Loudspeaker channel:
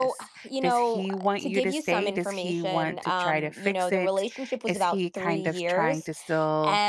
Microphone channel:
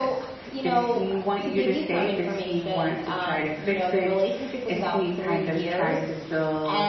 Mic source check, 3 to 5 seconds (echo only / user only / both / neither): echo only